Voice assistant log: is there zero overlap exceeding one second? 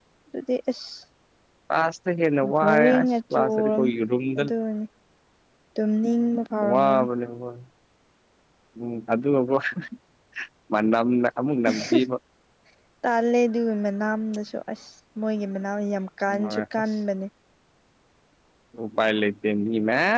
No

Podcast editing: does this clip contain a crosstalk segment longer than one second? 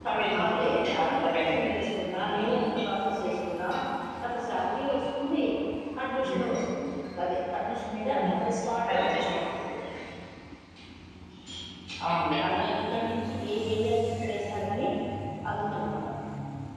Yes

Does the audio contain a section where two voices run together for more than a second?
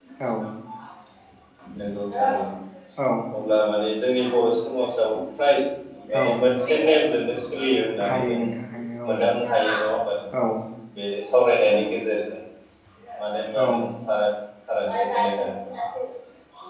No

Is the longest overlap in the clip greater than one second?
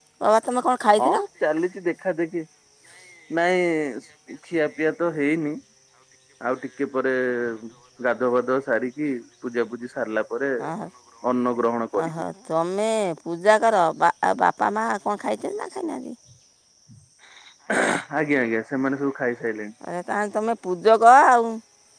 No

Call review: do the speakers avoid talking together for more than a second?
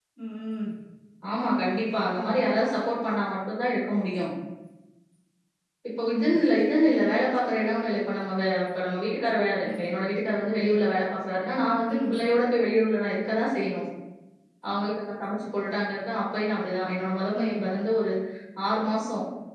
Yes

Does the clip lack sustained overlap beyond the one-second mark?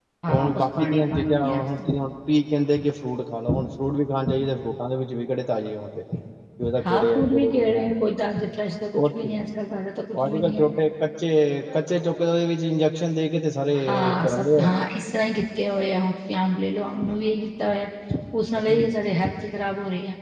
No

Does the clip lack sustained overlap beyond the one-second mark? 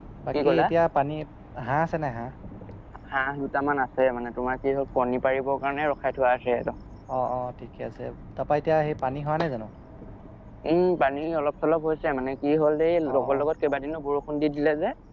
Yes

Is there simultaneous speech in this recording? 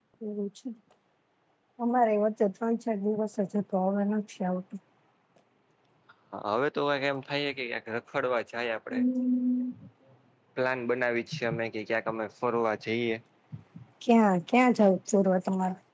No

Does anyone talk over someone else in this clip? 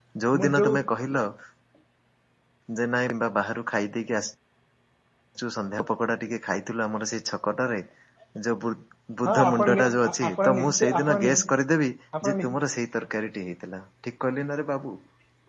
Yes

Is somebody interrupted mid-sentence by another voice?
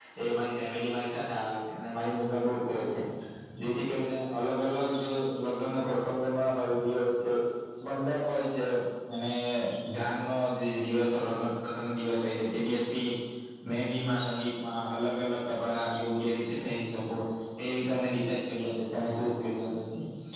No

